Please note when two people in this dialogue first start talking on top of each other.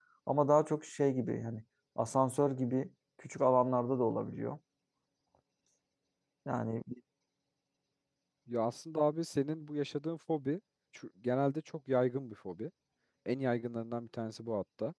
none

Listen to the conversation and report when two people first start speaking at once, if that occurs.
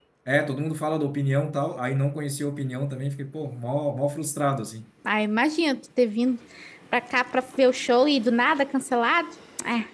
none

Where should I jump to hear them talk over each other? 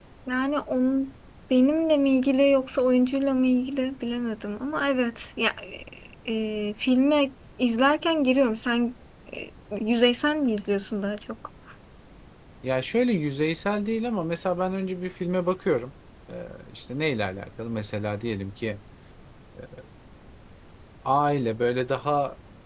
none

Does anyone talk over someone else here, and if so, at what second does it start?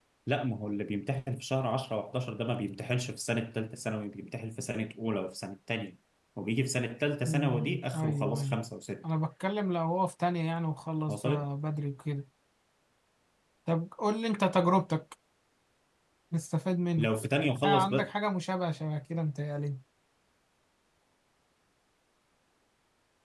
7.2 s

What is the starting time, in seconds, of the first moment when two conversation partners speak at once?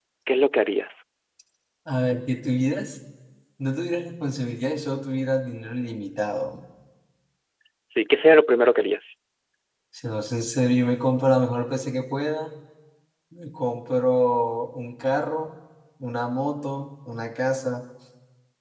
none

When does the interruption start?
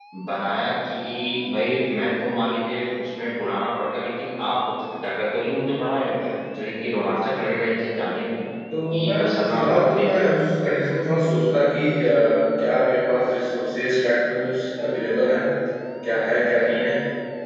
8.7 s

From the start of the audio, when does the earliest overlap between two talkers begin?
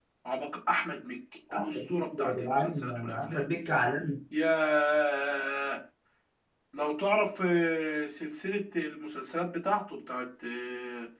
1.5 s

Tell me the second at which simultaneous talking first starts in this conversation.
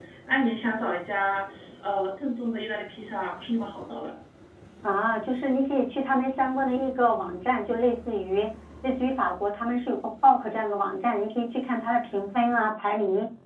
none

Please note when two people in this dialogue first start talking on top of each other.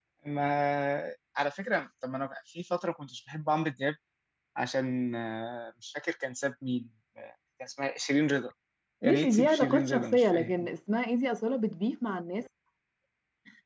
9.1 s

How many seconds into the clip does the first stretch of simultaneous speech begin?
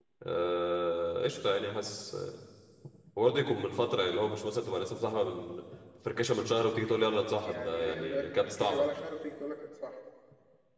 7.5 s

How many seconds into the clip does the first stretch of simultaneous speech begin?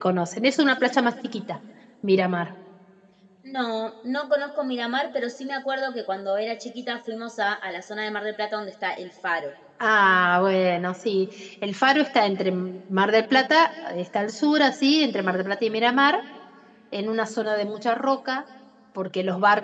none

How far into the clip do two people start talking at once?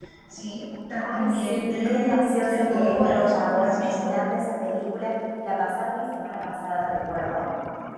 1.1 s

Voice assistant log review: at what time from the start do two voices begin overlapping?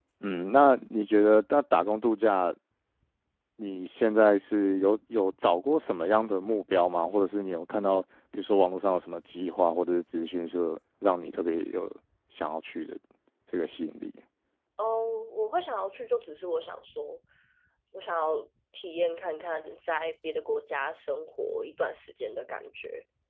none

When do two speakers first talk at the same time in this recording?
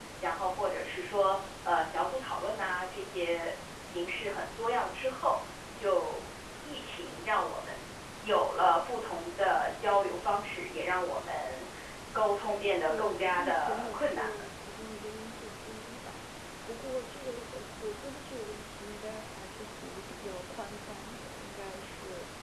12.9 s

